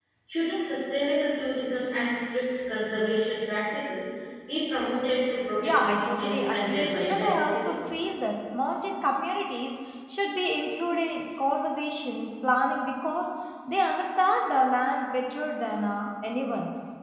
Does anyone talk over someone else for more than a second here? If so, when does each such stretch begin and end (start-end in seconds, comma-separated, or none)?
5.6-7.7